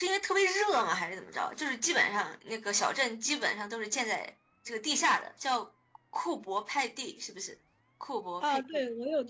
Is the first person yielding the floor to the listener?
Yes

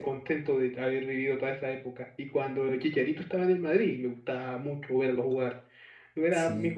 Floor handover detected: No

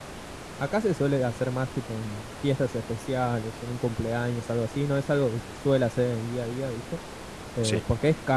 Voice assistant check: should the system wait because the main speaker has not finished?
Yes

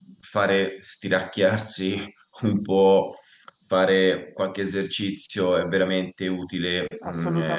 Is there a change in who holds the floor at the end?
Yes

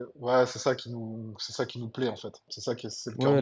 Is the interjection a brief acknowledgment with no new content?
No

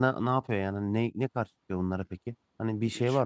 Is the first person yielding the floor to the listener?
Yes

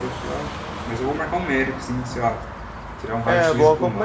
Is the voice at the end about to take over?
Yes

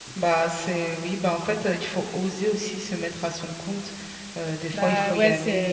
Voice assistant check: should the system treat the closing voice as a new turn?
Yes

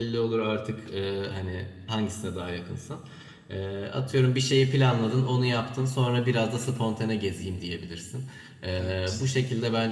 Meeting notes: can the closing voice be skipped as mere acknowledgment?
Yes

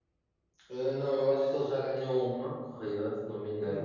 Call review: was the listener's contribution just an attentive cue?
Yes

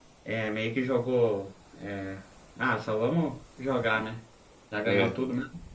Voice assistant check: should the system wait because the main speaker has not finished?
Yes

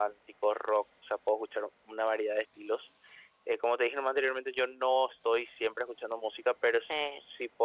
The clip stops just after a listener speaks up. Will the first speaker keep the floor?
Yes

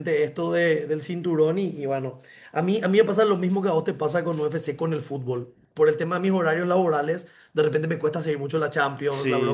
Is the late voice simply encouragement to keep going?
No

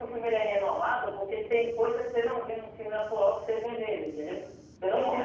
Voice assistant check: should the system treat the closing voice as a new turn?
No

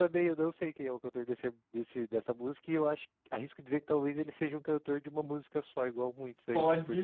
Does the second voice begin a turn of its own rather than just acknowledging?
Yes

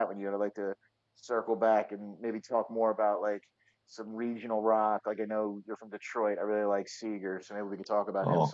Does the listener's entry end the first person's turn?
Yes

